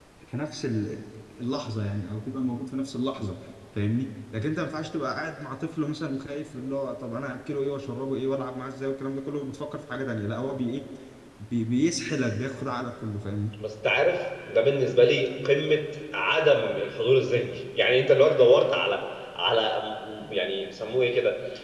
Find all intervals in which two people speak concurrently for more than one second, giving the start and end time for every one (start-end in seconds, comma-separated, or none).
none